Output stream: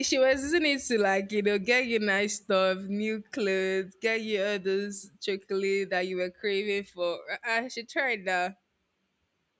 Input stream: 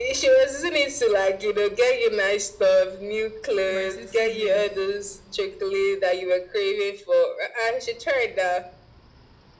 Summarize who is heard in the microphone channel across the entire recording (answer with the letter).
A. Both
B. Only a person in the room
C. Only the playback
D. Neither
A